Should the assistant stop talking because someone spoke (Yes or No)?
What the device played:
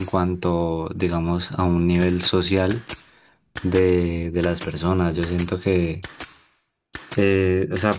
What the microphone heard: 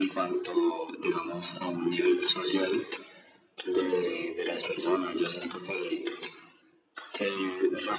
No